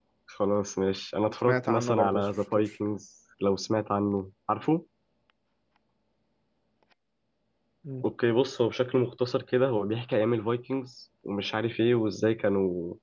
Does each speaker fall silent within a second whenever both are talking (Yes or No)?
No